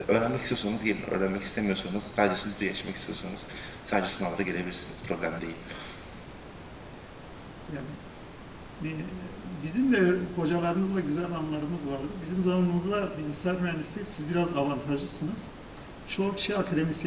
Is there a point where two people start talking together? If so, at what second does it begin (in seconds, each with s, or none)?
none